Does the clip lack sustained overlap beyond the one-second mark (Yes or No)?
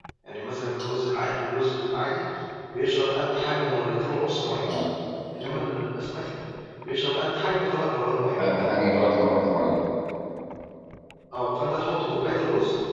Yes